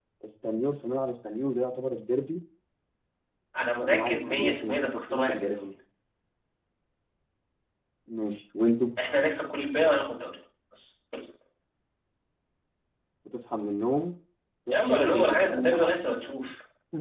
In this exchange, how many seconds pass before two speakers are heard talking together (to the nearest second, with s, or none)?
4 s